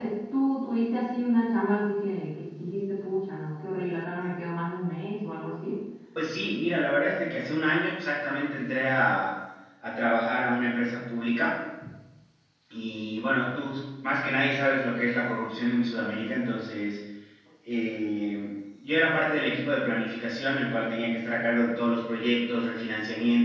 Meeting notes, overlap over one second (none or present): none